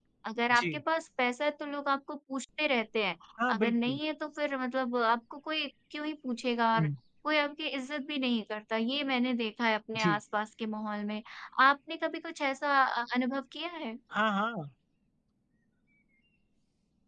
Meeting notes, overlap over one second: none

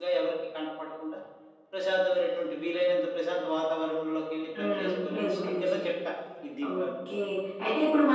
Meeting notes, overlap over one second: present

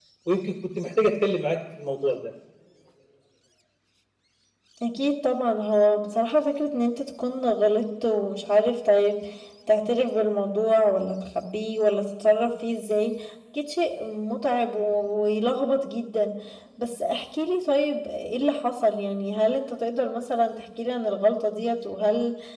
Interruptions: none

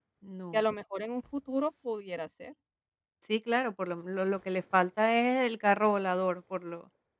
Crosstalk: none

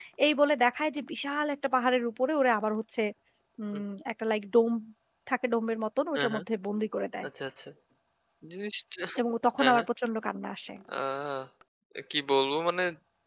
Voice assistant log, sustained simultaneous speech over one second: none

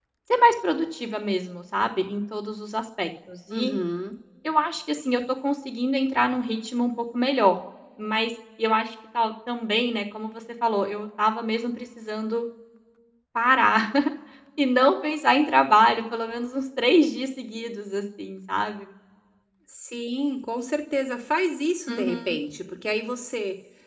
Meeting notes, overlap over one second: none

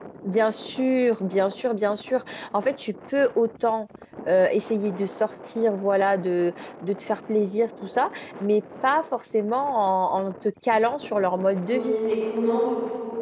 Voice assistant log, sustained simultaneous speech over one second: none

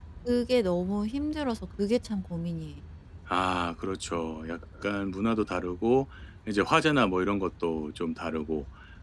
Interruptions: none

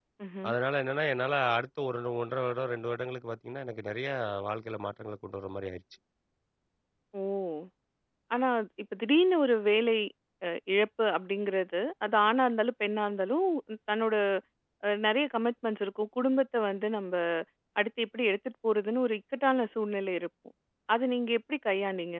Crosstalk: none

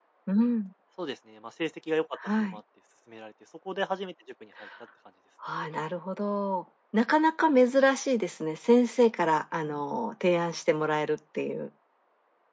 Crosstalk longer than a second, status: none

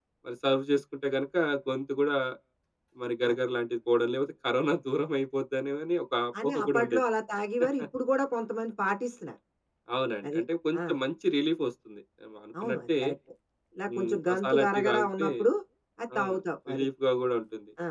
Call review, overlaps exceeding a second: present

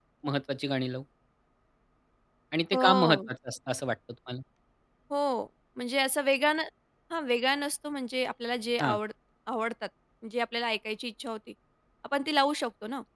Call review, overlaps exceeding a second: none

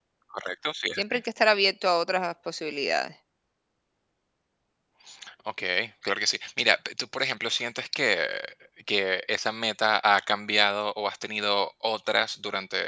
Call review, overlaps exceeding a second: none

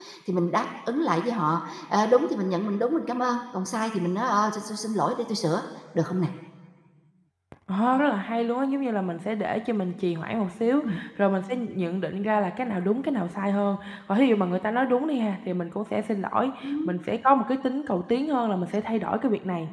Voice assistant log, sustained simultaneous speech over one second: none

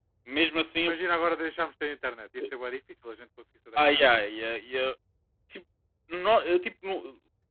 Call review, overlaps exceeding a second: none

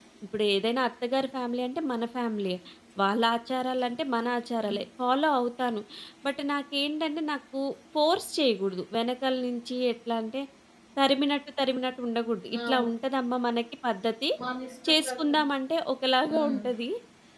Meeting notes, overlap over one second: none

